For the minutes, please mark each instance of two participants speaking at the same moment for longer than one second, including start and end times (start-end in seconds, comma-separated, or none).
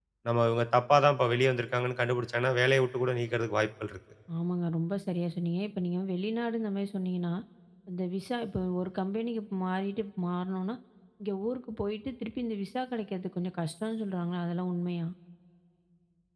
none